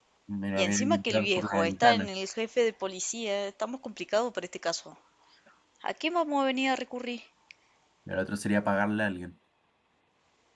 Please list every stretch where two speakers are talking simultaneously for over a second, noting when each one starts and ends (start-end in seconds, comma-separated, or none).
0.6-2.1